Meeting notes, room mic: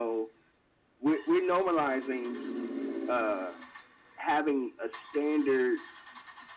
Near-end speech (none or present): none